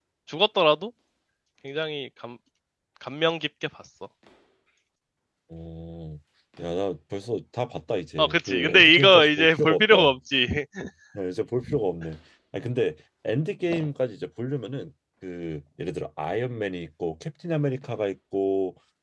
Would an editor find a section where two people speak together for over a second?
Yes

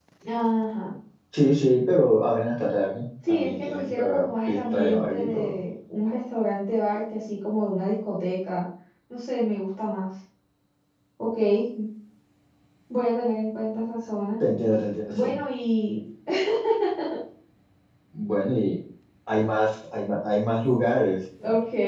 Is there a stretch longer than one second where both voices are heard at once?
Yes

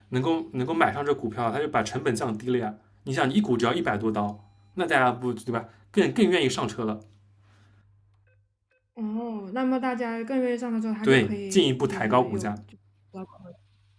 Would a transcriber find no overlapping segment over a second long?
No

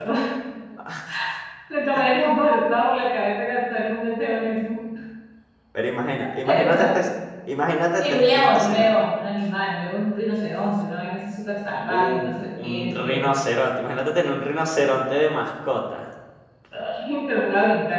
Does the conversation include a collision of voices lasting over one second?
Yes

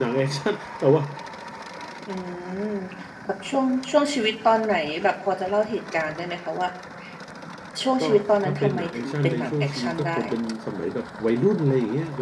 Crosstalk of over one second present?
Yes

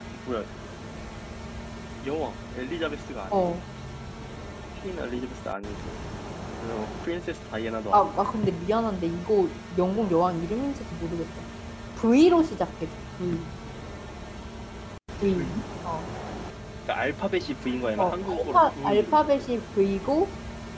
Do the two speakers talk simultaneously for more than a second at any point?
Yes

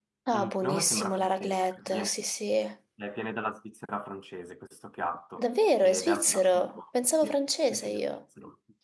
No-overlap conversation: No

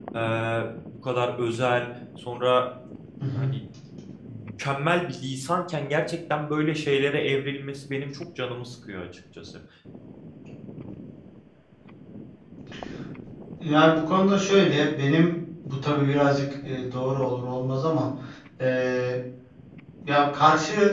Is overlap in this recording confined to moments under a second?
Yes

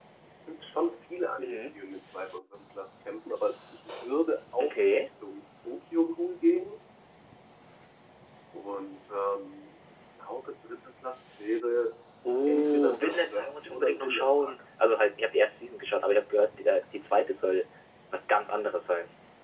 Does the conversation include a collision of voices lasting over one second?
Yes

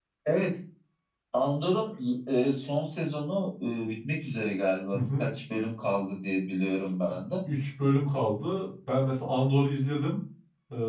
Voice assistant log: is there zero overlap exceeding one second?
Yes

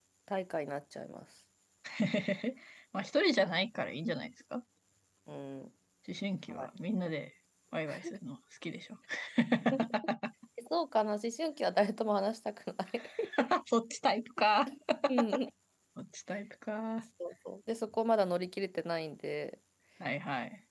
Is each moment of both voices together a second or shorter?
Yes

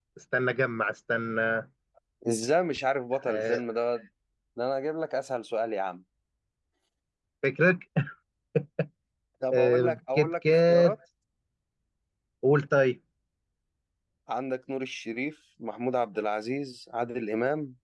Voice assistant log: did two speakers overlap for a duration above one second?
Yes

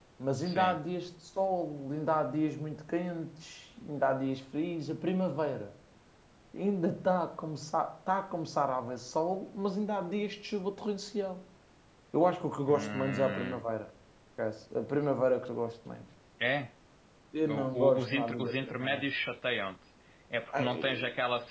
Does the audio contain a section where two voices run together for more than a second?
Yes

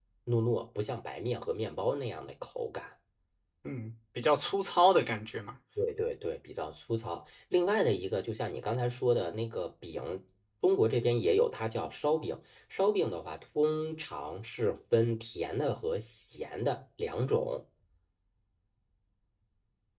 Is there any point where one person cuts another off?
No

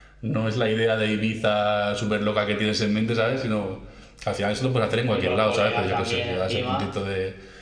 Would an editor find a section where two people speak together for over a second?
Yes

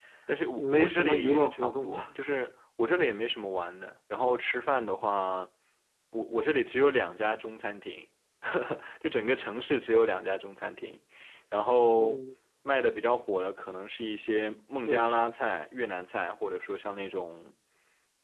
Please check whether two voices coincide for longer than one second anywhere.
Yes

